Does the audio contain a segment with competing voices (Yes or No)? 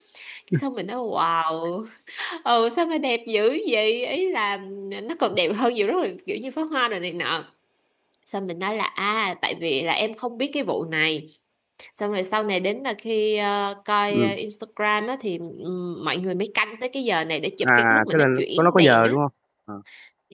Yes